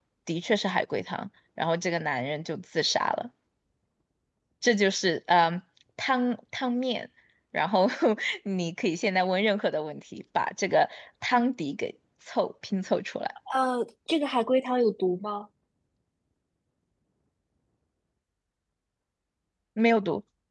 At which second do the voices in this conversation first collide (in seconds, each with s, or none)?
none